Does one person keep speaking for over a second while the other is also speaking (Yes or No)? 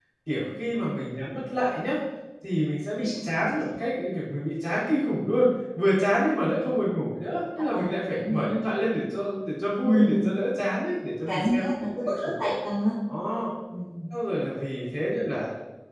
Yes